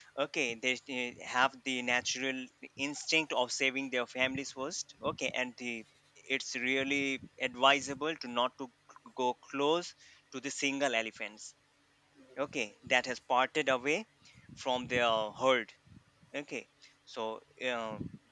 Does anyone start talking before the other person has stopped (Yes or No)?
No